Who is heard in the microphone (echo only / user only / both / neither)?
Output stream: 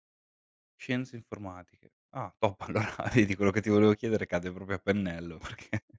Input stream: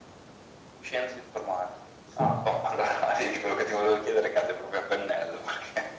both